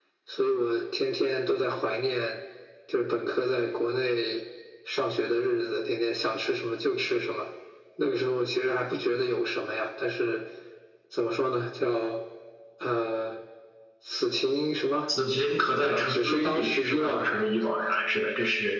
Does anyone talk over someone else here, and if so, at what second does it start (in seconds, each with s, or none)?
15.8 s